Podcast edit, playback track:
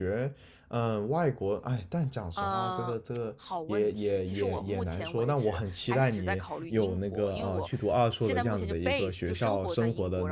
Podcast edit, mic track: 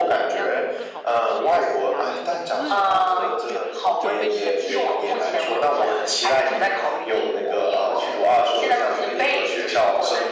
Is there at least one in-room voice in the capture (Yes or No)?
Yes